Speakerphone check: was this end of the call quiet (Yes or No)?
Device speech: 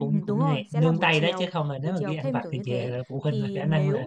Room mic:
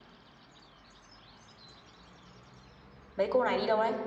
No